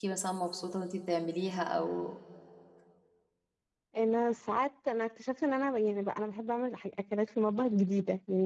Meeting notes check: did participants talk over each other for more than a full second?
No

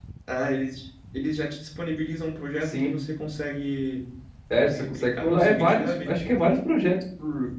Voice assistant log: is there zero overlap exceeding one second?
No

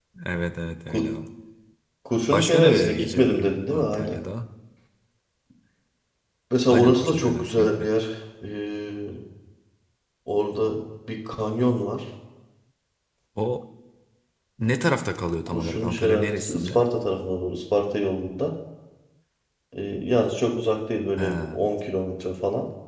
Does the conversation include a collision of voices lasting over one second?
Yes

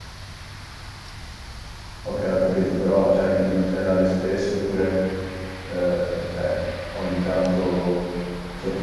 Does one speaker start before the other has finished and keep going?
No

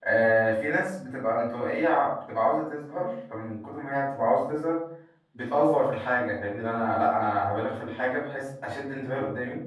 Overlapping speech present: No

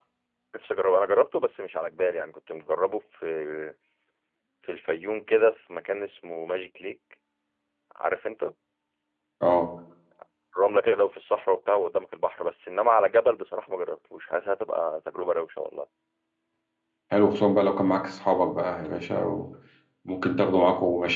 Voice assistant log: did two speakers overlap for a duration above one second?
No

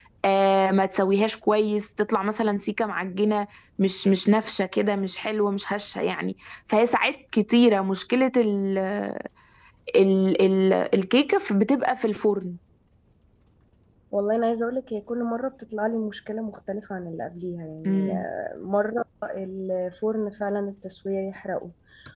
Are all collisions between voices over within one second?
Yes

